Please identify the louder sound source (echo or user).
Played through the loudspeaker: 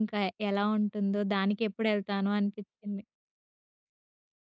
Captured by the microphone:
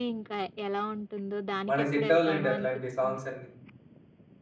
user